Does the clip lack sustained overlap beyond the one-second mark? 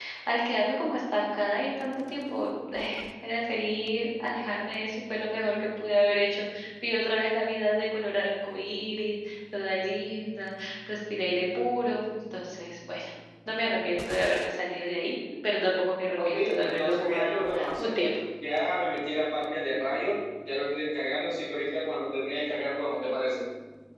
No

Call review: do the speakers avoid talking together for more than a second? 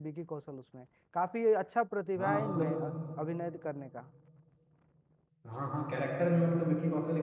Yes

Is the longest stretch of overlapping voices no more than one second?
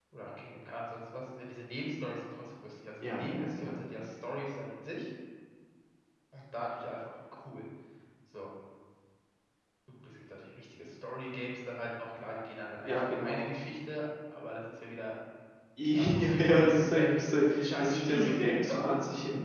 No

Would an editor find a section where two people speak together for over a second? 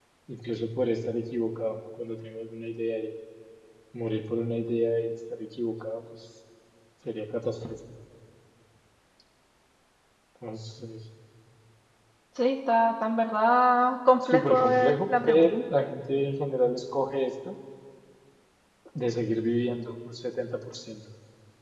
Yes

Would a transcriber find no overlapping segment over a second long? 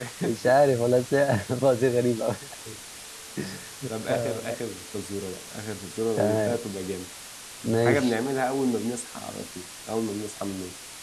Yes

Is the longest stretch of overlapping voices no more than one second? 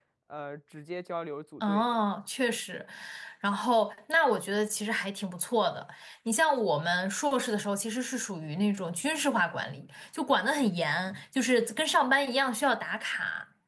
Yes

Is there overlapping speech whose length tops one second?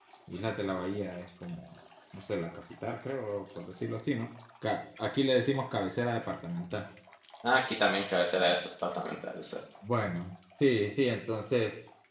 No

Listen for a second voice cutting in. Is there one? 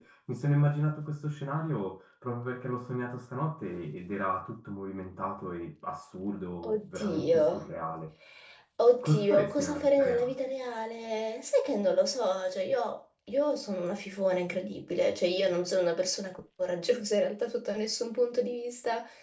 Yes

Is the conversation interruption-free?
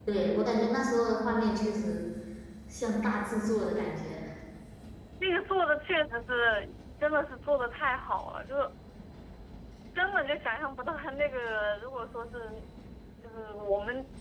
Yes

